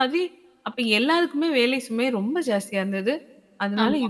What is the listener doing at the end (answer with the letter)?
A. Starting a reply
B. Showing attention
B